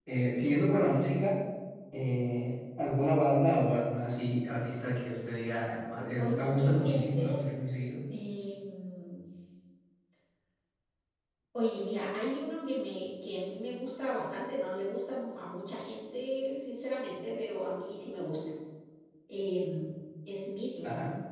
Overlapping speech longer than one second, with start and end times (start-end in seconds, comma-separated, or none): 6.2-7.4